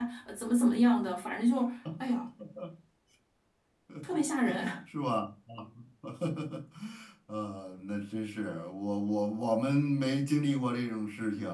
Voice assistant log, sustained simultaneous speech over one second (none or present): none